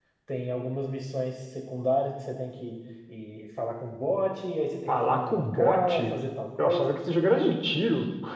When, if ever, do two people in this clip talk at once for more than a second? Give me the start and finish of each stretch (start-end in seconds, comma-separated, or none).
4.9-6.2